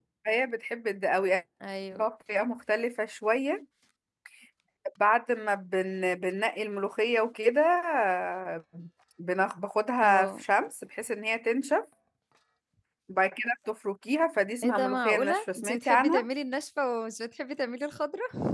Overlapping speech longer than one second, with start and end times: 14.6-16.2

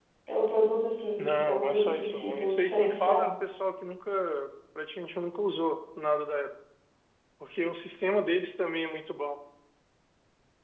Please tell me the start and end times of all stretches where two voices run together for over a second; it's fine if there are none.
1.2-3.3

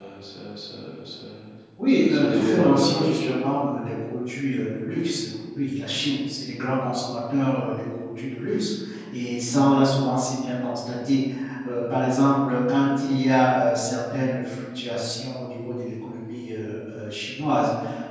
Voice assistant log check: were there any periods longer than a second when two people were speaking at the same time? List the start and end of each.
1.9-3.3

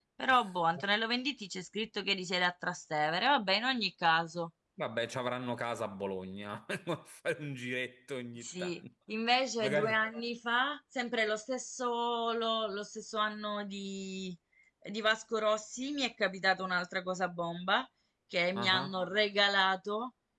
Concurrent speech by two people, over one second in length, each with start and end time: none

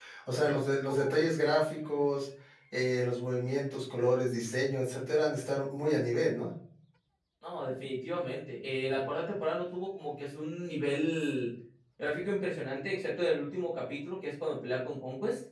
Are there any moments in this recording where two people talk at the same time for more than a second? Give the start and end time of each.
none

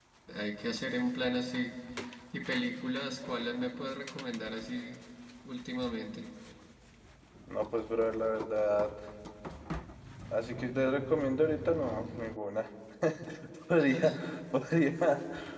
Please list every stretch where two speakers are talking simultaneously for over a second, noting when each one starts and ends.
none

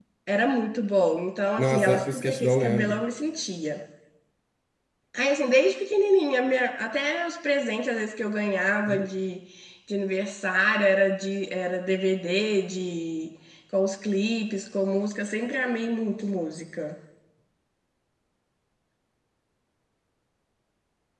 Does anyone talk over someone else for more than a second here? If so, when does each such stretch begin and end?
1.6-3.0

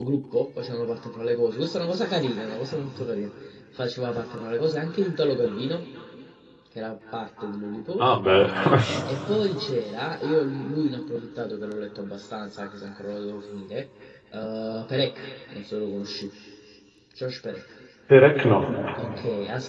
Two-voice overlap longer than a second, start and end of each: none

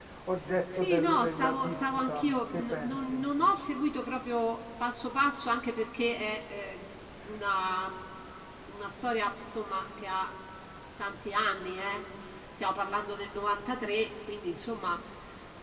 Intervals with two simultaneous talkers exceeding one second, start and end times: 0.8-3.2

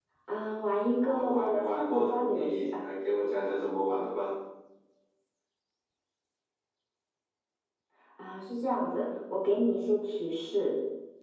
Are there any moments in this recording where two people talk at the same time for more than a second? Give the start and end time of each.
1.0-2.7

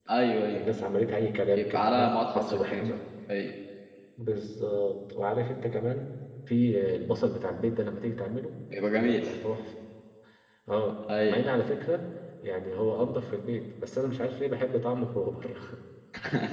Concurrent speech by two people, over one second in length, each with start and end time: 1.5-2.8

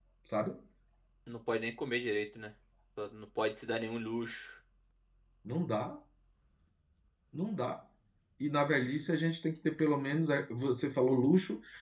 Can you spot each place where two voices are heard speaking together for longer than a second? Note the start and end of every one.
none

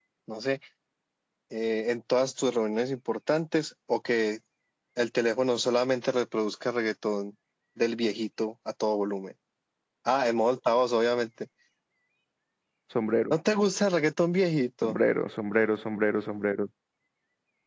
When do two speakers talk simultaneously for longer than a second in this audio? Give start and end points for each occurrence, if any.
none

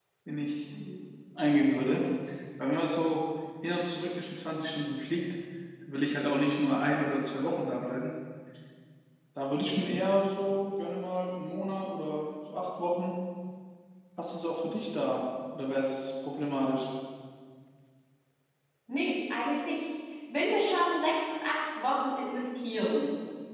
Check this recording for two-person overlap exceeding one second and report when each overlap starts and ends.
none

